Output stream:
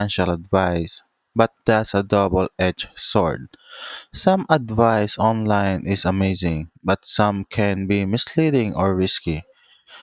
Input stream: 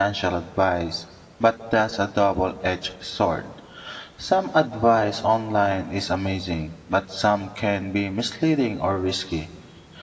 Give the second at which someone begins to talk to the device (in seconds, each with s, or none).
none